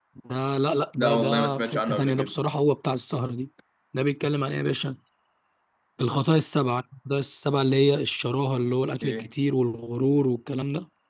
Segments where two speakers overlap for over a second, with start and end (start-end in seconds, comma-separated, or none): 1.0-2.3